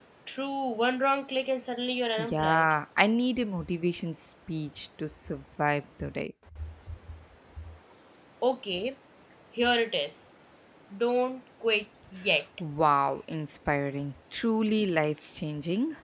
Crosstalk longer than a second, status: none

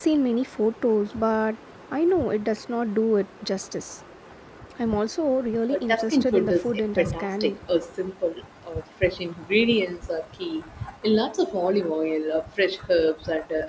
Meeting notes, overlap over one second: present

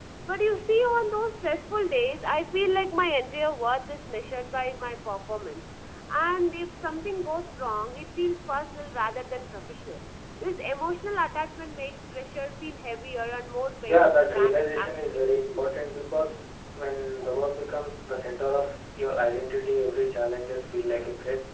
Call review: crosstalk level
present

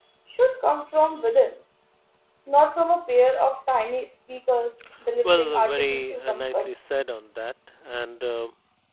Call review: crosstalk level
present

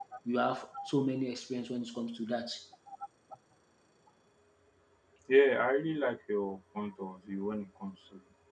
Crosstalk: none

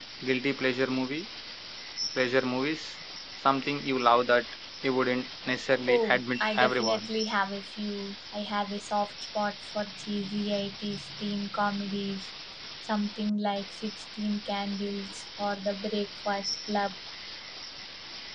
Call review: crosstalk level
present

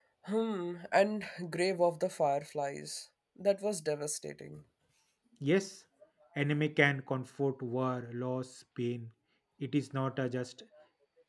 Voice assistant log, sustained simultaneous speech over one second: none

